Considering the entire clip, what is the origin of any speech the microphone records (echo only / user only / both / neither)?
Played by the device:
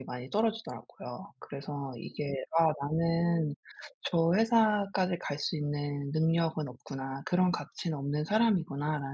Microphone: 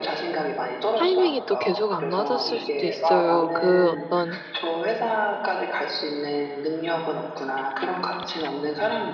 both